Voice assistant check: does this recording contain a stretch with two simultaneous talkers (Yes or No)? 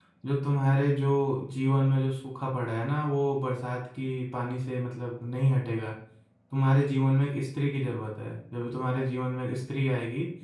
No